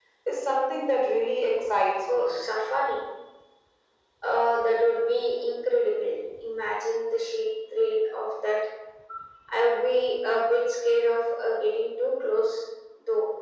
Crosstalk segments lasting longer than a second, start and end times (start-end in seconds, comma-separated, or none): none